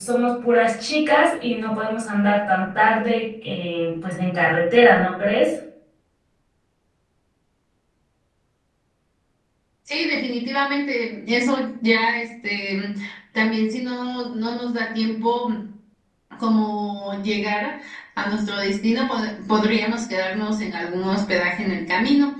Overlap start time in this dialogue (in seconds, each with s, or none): none